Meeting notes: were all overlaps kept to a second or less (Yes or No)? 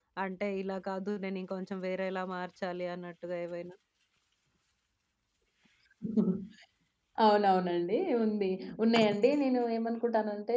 Yes